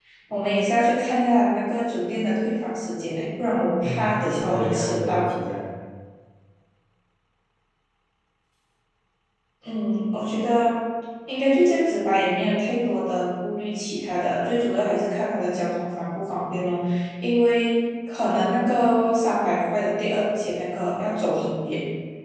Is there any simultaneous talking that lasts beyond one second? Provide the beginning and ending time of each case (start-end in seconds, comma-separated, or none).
3.8-5.3